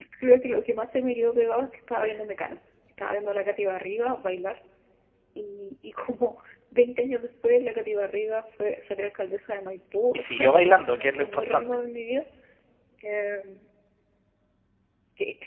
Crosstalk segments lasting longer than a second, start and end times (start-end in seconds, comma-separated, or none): 10.1-11.7